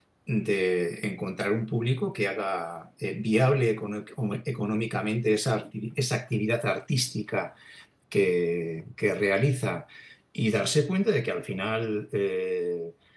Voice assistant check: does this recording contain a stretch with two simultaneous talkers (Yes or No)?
No